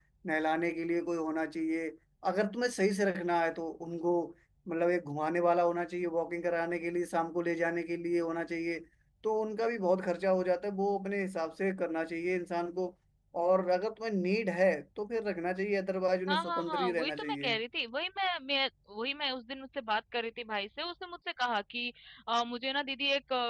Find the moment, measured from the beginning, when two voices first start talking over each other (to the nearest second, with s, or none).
16 s